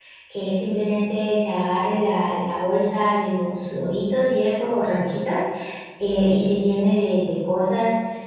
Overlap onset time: none

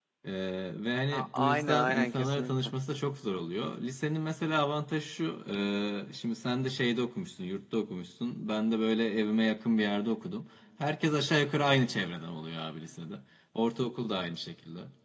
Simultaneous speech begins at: 1.1 s

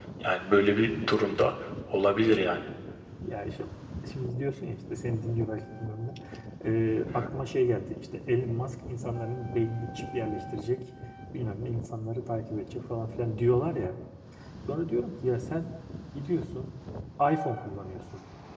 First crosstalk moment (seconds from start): none

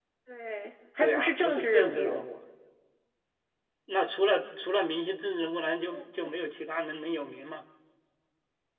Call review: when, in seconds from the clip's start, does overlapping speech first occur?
1.0 s

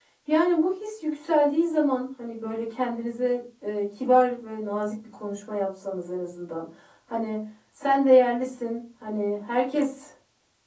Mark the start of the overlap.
none

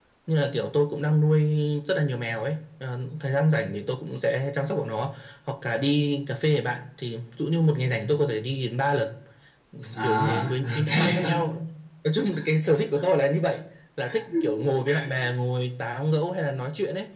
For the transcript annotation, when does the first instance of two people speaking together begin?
10.0 s

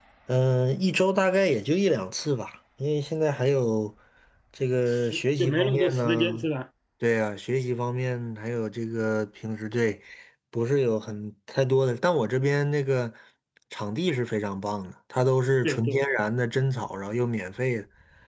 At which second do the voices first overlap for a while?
5.1 s

